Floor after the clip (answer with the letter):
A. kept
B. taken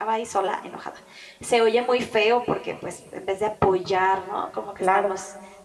A